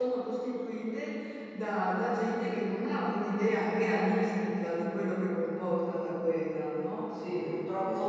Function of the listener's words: taking over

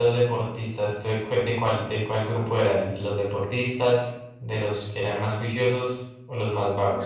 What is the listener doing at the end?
taking over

